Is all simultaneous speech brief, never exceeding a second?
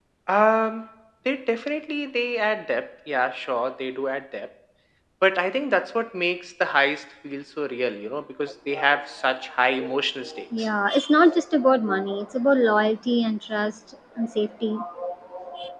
Yes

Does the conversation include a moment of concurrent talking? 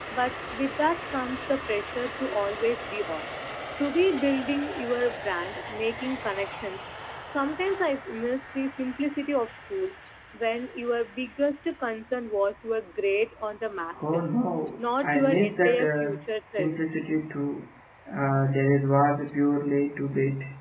Yes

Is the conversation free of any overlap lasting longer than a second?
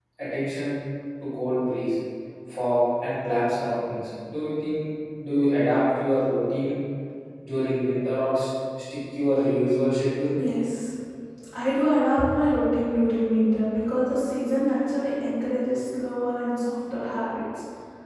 Yes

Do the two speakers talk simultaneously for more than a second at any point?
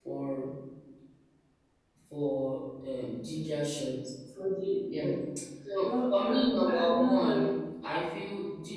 Yes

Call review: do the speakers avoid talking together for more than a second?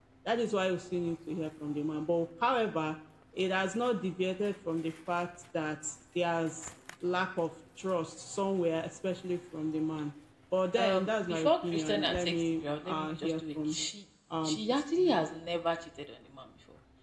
No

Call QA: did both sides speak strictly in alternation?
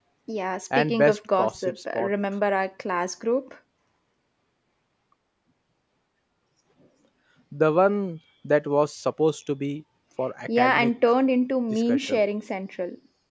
No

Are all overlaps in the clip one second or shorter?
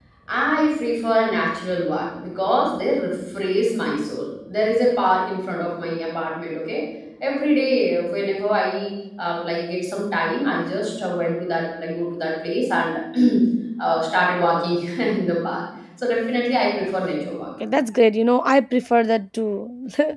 Yes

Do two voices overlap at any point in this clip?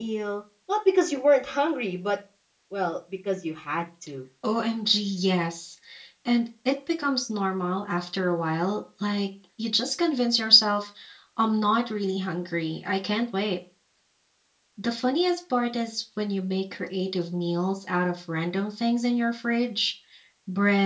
No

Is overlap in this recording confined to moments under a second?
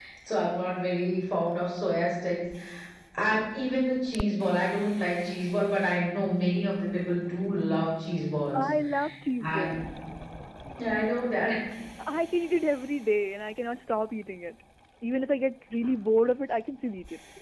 Yes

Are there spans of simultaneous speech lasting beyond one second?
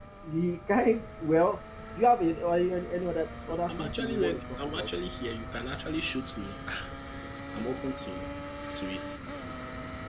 Yes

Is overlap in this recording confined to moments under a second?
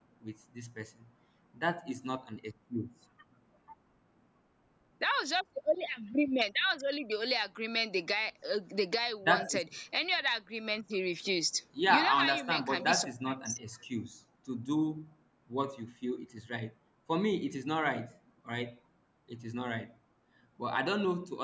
No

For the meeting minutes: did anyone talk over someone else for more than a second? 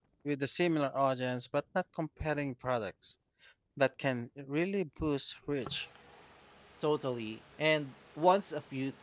No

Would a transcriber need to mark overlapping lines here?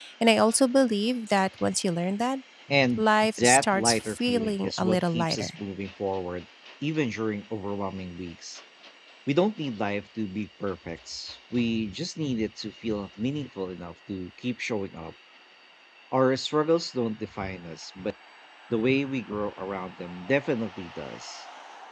Yes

